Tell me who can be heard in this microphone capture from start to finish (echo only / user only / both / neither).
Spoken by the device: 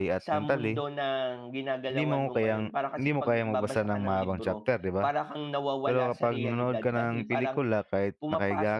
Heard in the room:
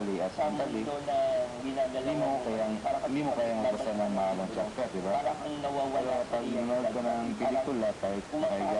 echo only